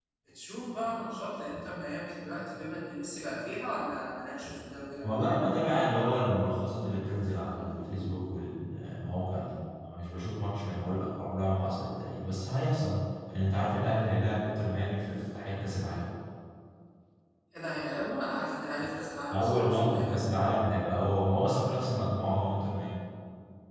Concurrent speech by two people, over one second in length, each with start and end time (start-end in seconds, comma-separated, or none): 19.3-20.6